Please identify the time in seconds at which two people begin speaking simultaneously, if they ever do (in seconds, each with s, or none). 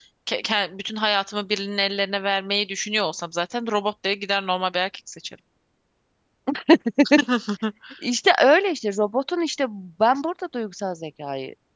none